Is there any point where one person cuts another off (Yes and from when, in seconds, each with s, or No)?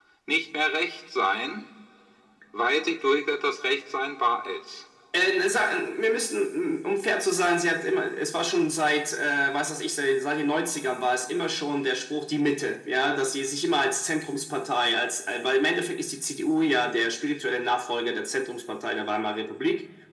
No